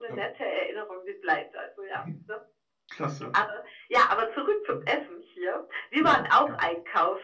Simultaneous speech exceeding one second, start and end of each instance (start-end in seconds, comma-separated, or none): none